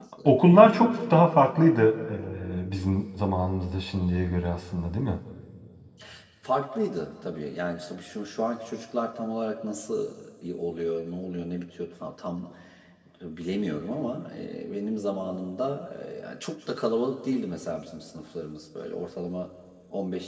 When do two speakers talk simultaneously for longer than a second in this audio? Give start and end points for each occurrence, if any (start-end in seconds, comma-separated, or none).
none